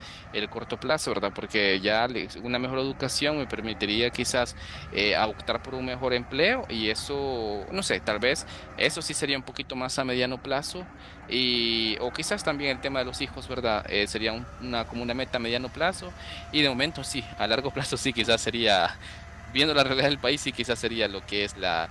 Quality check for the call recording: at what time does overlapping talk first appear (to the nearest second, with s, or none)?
none